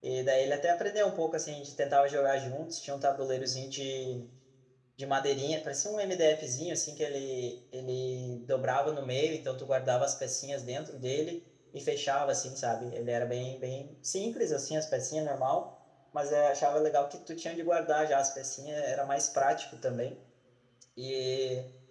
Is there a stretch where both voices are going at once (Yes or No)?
No